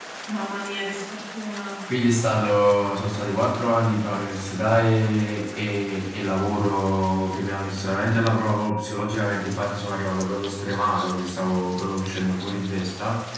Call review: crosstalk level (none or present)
none